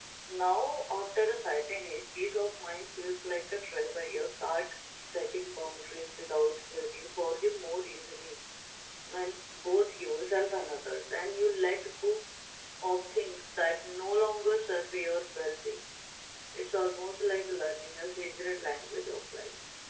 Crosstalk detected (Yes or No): No